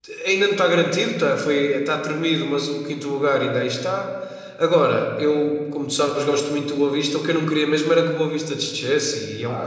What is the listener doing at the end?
taking over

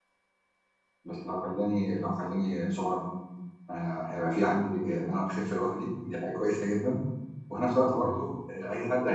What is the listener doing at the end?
listening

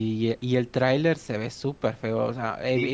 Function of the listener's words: listening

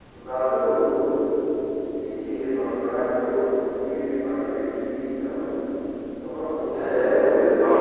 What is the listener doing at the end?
taking over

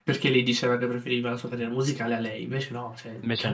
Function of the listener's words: listening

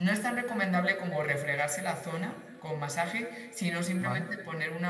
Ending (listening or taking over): listening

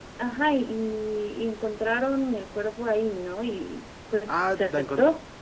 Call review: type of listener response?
taking over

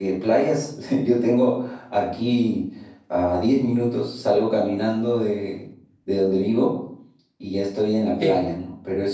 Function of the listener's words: listening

